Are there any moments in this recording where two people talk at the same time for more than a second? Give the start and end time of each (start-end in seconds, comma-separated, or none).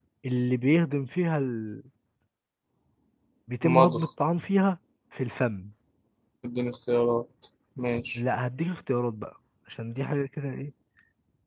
none